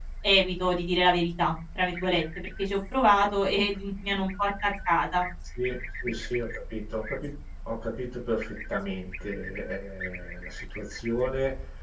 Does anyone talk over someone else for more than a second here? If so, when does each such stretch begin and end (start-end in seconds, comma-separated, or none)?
none